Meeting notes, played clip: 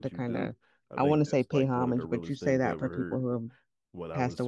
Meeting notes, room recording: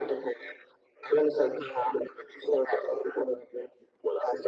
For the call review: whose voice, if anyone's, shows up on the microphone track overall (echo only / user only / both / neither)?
echo only